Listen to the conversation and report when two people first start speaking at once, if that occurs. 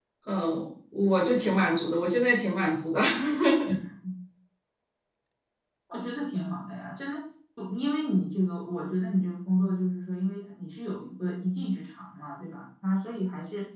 none

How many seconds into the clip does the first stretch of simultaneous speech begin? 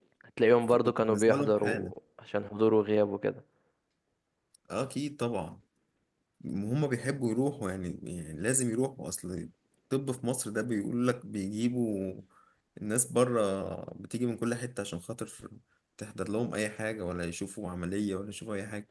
0.7 s

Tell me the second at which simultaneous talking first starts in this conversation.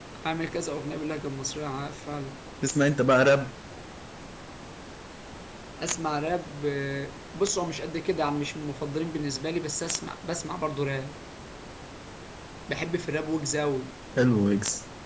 none

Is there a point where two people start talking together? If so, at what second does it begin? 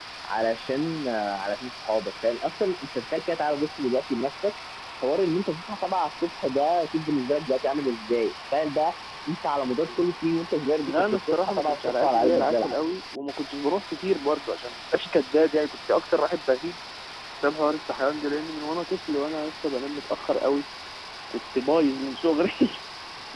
10.8 s

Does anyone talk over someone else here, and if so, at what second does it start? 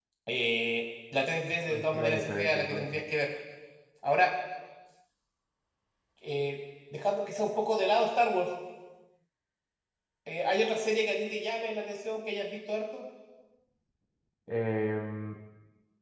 1.7 s

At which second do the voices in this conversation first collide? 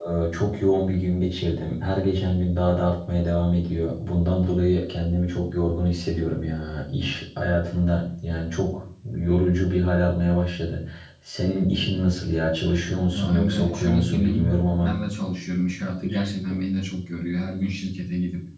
13.1 s

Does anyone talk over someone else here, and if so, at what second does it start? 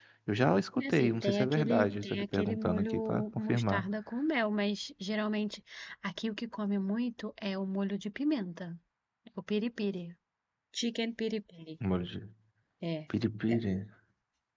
0.8 s

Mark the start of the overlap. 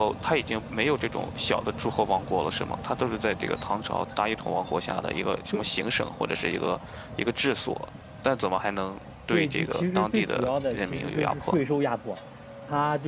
9.3 s

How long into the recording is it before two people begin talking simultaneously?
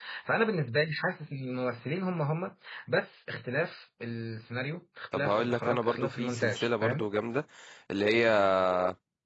5.1 s

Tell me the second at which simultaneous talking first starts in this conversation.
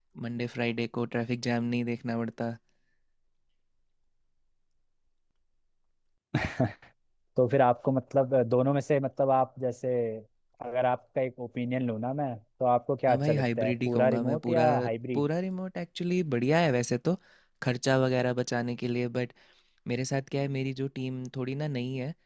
13.1 s

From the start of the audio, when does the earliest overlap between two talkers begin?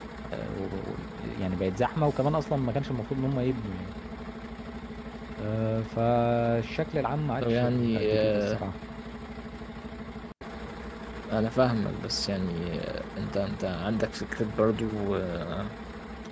7.4 s

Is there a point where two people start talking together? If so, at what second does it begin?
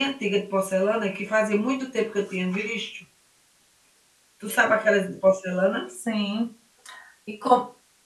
none

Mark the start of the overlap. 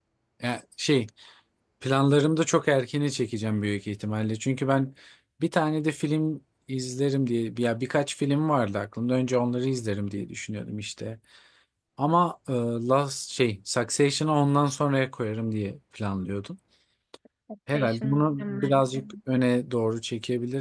17.7 s

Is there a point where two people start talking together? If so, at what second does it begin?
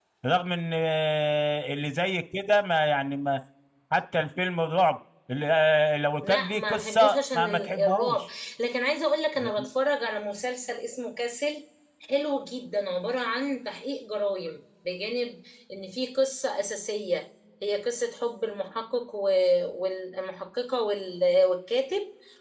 6.2 s

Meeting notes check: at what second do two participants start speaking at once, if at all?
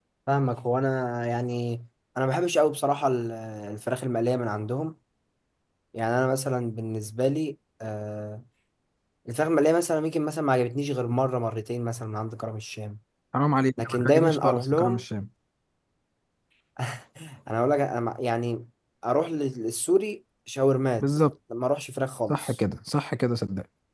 13.8 s

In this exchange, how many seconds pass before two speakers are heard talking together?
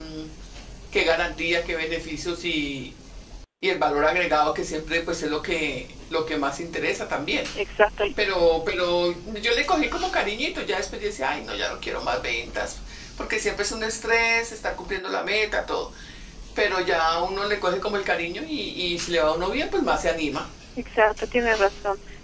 none

